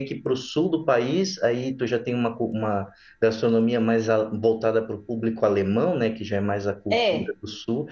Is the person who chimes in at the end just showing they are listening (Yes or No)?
Yes